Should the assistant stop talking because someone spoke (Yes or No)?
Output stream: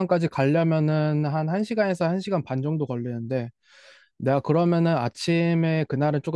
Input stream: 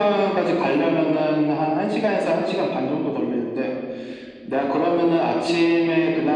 No